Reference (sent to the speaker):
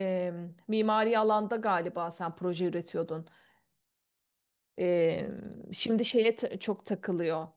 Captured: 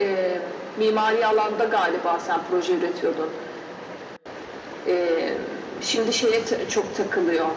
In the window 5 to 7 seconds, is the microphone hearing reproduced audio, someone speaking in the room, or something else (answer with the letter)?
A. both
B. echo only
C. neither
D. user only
B